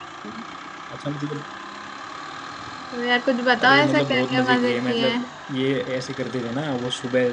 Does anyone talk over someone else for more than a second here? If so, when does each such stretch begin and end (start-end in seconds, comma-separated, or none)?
3.6-5.3